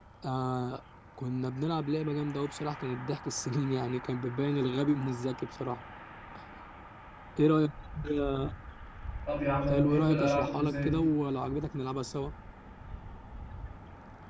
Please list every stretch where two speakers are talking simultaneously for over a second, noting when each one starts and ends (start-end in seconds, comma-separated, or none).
9.7-11.0